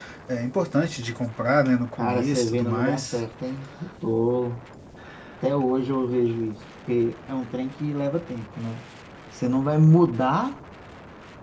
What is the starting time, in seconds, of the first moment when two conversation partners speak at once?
2.0 s

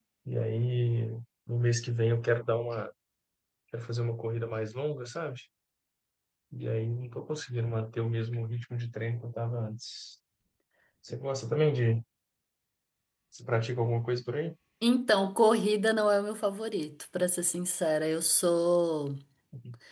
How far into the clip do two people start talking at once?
none

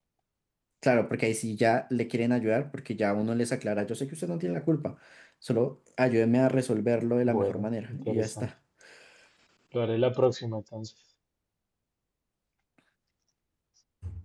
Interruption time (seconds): 7.2 s

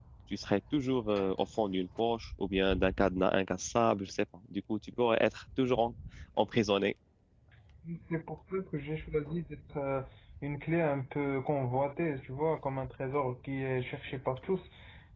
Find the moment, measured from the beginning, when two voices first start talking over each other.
none

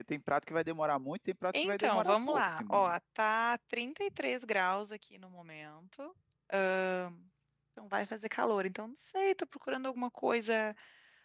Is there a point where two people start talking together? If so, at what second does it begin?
1.5 s

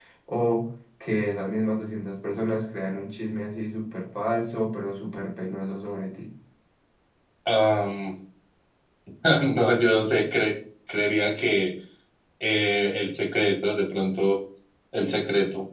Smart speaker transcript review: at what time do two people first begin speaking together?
none

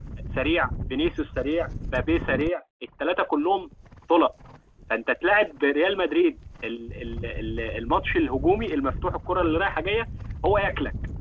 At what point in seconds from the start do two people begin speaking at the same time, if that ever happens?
none

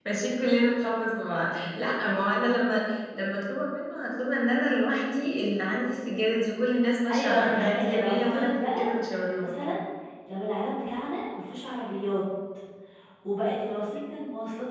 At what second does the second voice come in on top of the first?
7.1 s

